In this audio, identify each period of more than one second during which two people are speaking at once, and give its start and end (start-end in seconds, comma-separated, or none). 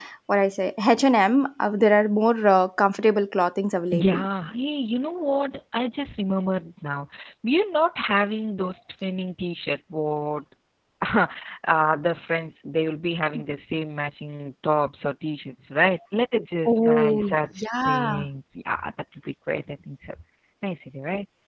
16.6-18.2